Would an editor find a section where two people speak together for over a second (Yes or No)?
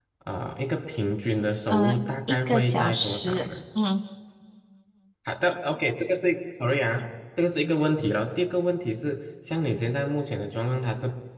Yes